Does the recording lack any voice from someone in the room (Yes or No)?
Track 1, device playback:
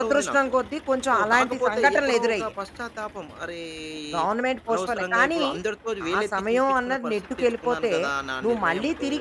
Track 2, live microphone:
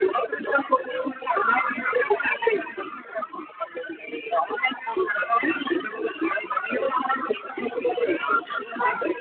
Yes